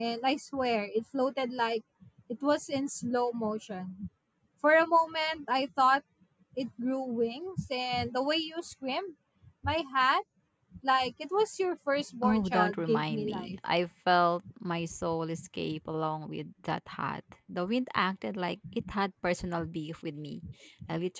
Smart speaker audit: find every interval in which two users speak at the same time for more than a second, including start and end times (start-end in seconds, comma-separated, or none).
12.2-13.6